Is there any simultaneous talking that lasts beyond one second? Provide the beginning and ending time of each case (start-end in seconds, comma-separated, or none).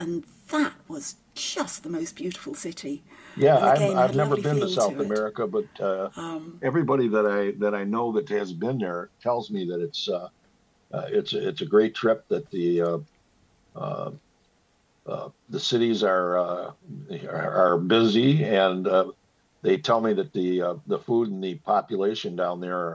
3.6-5.2